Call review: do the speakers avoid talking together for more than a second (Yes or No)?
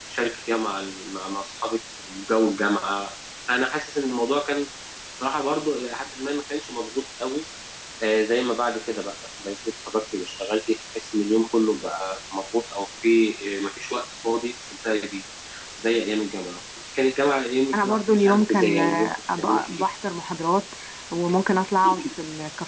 No